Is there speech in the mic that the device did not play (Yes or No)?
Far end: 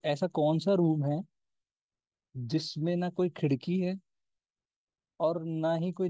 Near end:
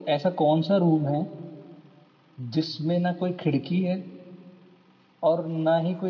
No